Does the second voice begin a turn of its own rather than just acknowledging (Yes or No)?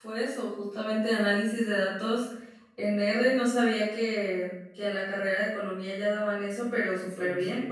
No